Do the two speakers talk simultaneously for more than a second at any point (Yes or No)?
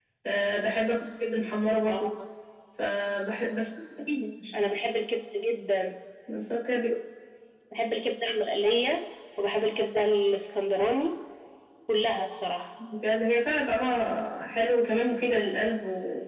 No